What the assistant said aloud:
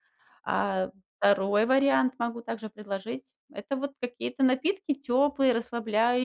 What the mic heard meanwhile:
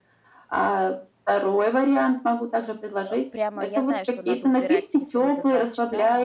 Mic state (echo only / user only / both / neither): both